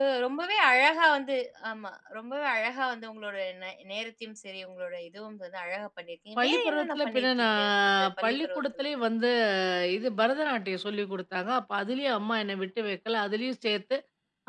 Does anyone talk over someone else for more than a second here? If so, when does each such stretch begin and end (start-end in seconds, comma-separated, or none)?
6.4-8.8